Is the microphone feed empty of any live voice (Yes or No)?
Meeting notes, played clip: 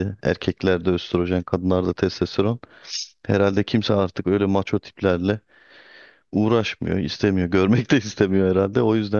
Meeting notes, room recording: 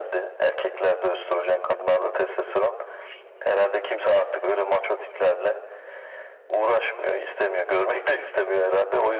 Yes